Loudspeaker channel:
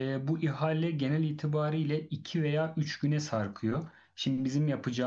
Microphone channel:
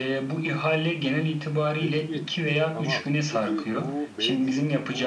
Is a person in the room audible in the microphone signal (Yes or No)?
Yes